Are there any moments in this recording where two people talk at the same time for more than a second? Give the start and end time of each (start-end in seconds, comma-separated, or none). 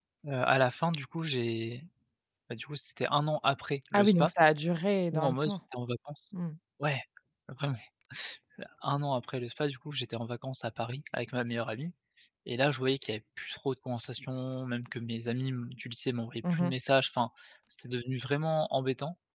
none